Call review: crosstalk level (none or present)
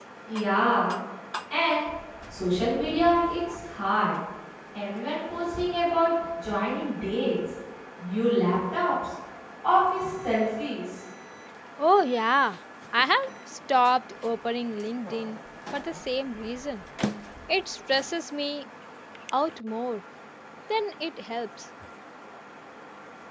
none